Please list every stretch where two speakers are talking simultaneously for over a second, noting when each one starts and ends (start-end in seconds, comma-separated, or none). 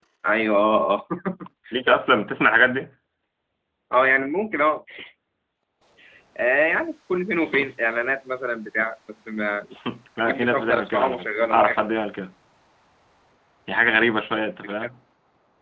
10.2-11.8